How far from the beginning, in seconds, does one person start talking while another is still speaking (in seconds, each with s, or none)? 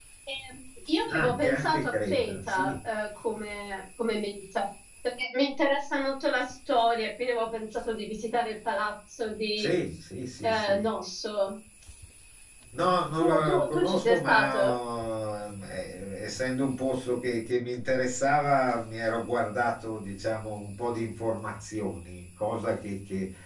1.1 s